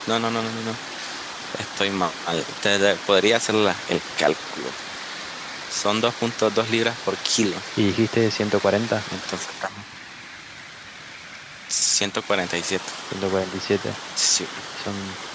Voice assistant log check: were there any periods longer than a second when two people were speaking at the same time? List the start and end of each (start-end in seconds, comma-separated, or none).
none